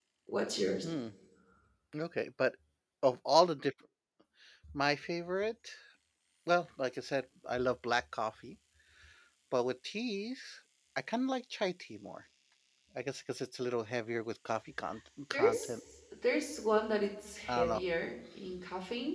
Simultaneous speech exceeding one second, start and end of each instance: none

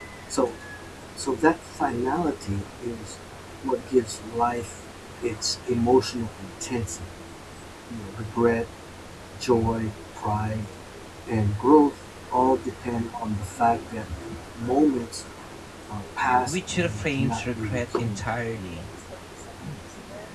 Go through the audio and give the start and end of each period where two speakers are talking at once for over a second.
16.4-18.2

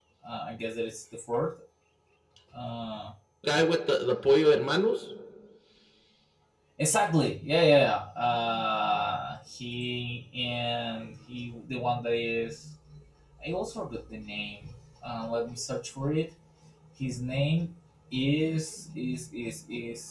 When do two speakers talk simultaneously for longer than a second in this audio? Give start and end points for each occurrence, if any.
none

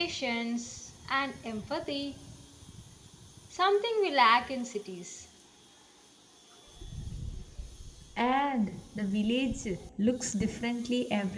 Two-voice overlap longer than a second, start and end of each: none

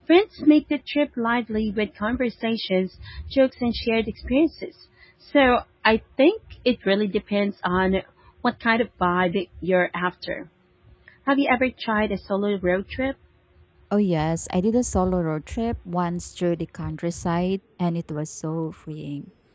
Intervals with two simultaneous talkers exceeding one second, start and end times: none

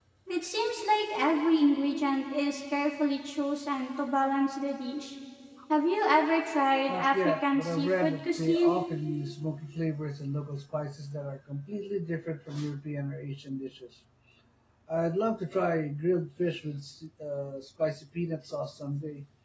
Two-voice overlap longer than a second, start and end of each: 6.9-8.8

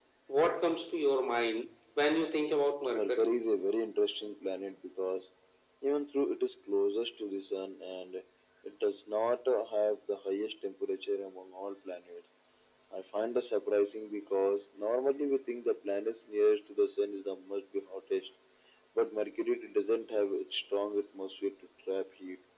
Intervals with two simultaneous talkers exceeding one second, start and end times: none

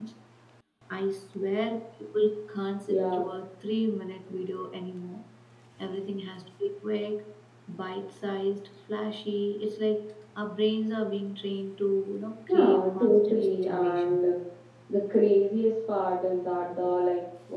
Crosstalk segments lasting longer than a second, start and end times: 12.5-14.2

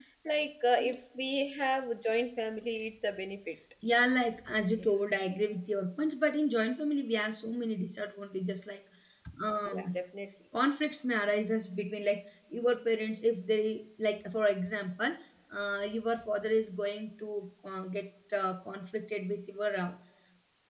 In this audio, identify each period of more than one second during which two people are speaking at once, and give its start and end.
none

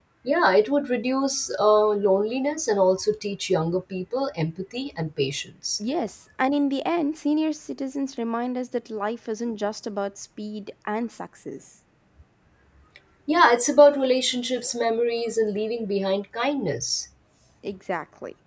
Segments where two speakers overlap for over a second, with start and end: none

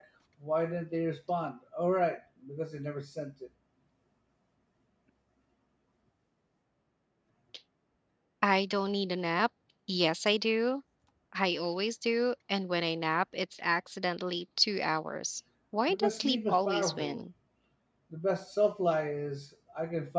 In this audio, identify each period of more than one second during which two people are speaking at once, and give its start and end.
15.9-17.2

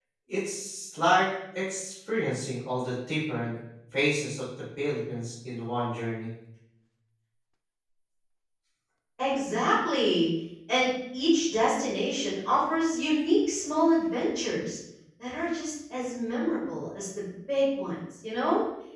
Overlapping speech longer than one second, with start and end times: none

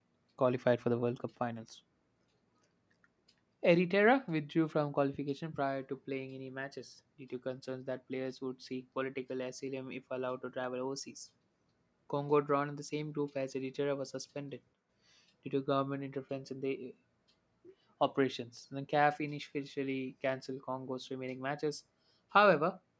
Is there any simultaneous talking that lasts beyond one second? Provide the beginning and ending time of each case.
none

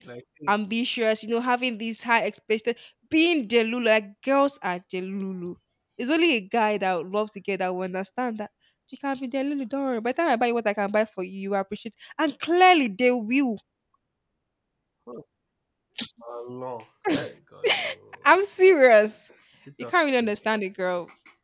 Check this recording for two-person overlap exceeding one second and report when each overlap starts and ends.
none

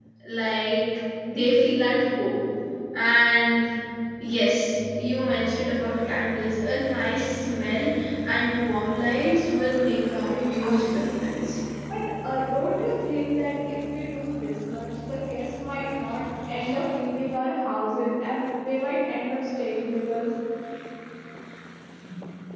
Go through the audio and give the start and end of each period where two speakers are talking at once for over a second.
9.9-11.5

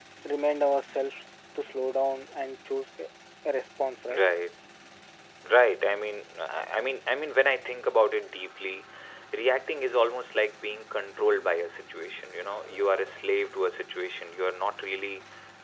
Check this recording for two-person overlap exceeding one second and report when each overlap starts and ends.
none

